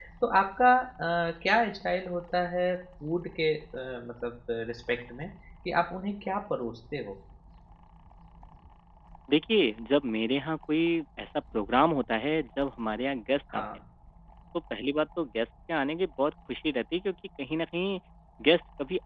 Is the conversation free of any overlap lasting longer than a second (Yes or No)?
Yes